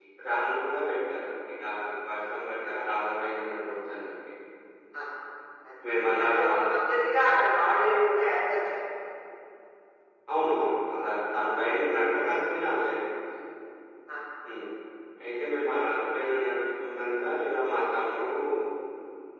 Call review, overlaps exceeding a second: none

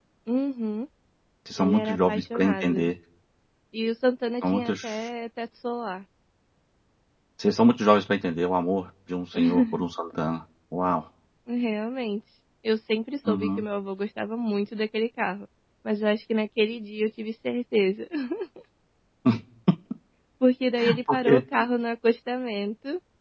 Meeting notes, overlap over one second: present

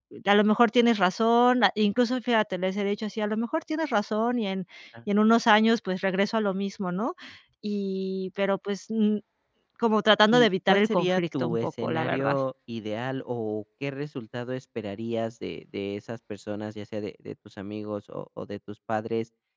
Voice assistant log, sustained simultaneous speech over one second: present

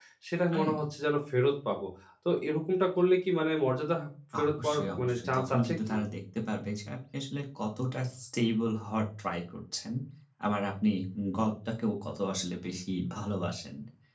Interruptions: present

